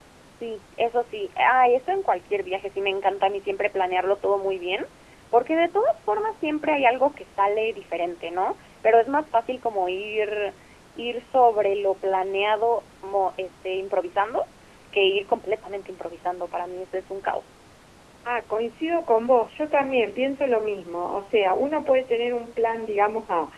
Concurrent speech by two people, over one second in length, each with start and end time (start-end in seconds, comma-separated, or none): none